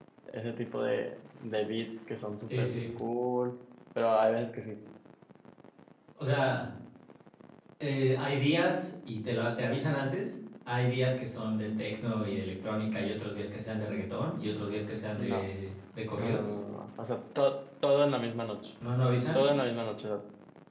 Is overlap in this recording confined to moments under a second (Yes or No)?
Yes